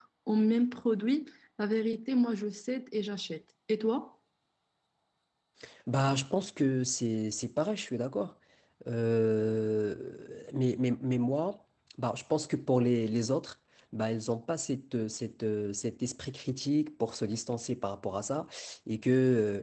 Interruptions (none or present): none